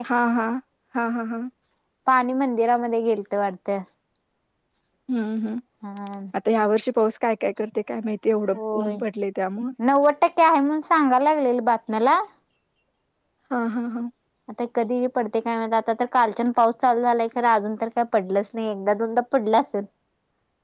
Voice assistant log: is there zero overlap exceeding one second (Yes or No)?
Yes